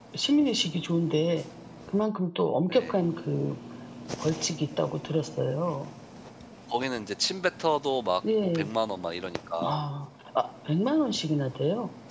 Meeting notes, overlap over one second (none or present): none